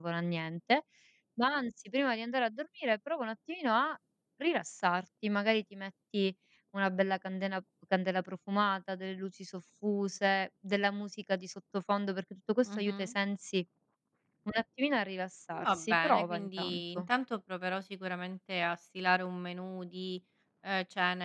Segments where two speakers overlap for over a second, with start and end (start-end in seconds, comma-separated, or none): 15.6-17.0